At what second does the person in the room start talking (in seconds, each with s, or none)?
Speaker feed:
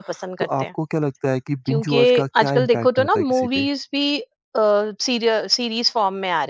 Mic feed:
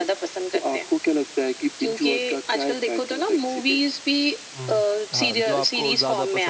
4.6 s